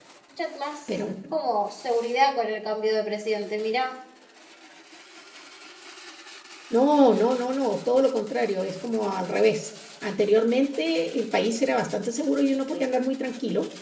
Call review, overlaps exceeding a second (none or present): none